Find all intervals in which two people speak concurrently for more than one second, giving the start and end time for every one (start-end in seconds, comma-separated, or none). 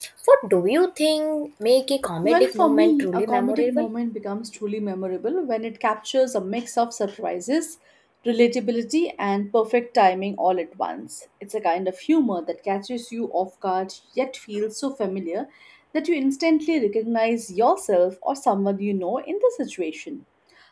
2.2-3.9